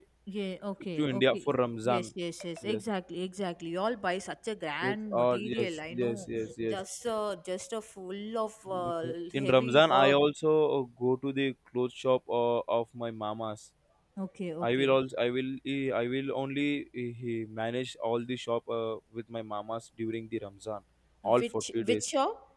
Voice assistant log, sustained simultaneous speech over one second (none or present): present